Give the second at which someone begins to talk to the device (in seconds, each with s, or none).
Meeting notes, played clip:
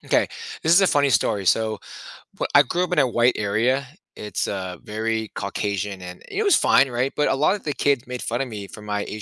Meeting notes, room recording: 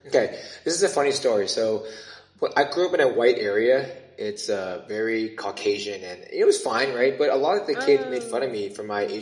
7.7 s